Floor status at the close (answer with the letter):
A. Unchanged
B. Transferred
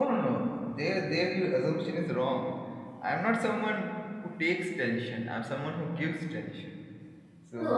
B